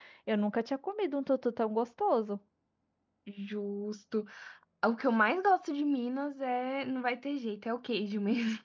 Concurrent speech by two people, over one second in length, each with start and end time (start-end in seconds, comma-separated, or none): none